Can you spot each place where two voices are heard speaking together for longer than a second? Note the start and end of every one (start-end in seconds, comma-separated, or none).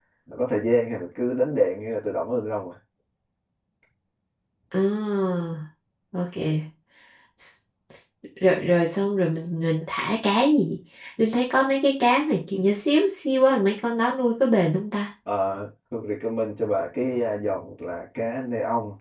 none